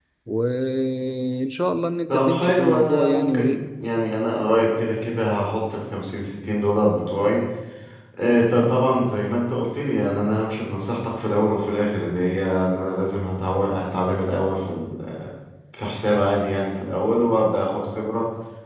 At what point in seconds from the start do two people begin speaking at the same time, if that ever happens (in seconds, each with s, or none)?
2.1 s